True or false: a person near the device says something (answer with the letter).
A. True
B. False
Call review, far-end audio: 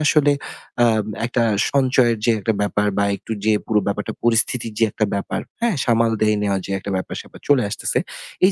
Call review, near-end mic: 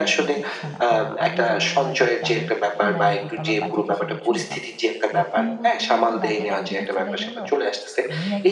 A